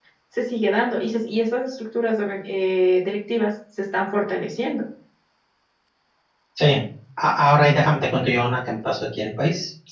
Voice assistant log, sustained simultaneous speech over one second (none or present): none